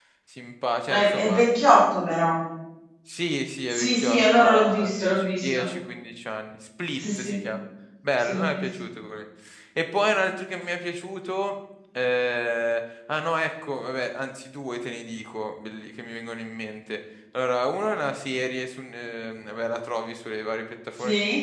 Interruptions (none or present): present